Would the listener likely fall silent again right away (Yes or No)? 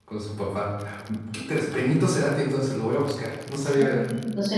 No